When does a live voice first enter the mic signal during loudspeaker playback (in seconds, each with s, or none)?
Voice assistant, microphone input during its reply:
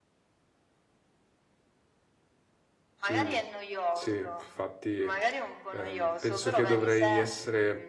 3.1 s